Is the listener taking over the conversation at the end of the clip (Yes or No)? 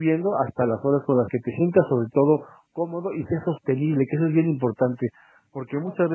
No